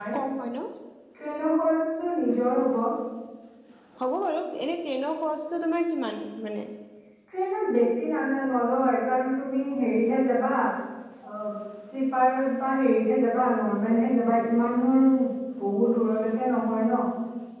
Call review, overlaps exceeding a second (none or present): none